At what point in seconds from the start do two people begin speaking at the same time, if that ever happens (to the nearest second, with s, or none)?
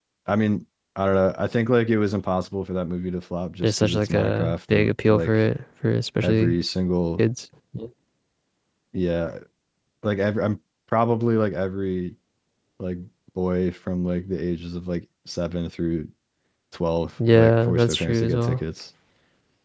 4 s